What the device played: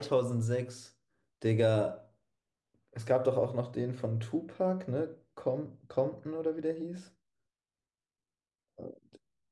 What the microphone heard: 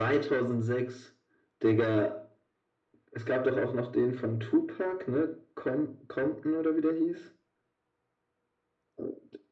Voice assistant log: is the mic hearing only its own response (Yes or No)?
Yes